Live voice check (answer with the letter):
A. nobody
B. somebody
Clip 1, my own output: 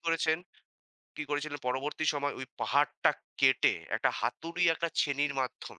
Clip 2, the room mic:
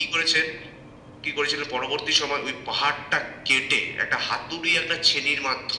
A